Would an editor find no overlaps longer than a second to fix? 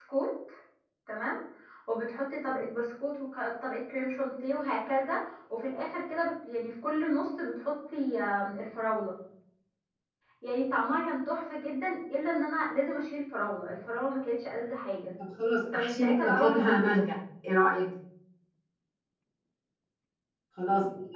No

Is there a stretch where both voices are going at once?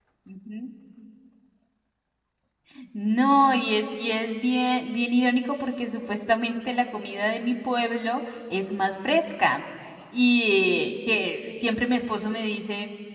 No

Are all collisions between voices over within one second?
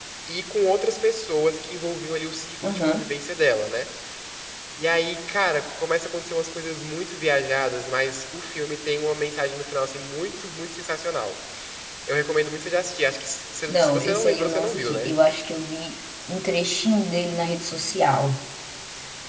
No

